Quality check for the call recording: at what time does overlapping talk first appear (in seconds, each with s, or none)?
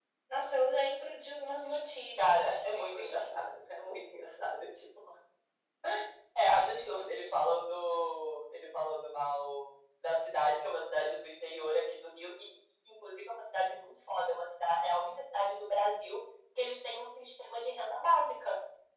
2.2 s